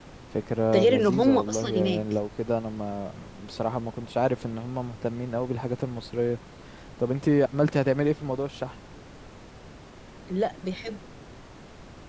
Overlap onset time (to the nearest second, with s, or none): 1 s